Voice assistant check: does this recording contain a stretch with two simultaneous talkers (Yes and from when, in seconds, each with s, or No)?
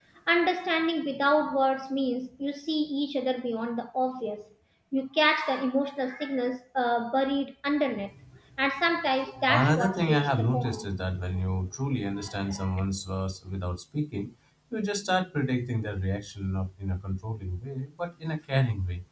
Yes, from 9.5 s